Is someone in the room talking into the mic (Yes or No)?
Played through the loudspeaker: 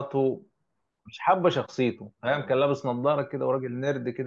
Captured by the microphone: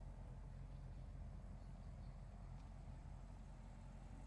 No